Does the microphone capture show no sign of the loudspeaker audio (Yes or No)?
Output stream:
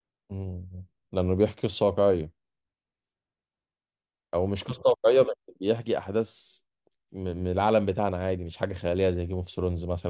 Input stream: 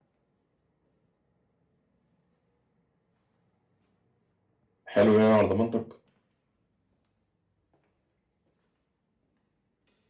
Yes